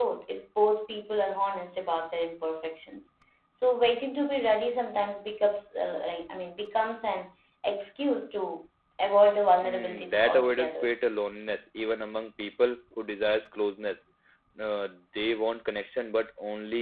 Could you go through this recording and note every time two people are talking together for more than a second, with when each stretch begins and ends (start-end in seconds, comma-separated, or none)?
9.6-10.8